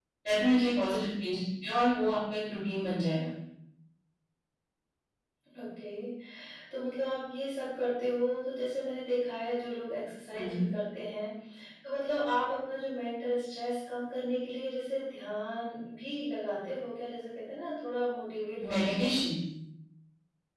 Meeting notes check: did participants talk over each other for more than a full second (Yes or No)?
No